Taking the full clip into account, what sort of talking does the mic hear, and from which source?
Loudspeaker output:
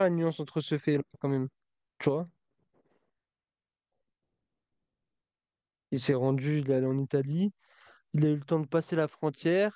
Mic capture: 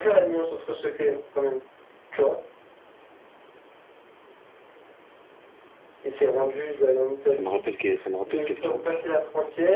both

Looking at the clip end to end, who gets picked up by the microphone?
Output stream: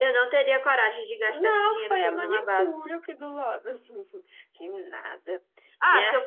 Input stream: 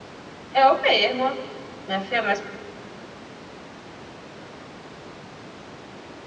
user only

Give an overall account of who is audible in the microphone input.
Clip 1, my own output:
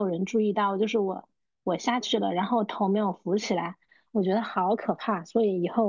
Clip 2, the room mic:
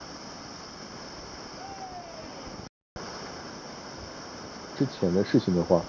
user only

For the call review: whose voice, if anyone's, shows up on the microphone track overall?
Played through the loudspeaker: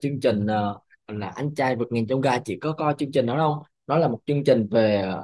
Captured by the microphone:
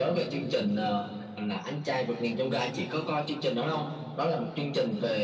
echo only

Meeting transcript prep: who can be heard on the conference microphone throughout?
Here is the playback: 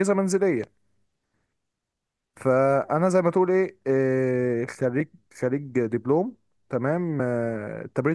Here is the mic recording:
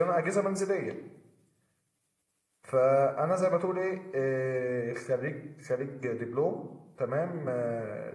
echo only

